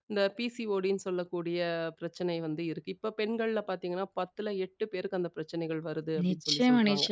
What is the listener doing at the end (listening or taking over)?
taking over